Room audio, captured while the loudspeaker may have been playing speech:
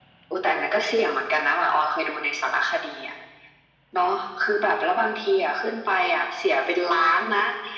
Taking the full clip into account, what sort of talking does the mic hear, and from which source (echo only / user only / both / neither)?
echo only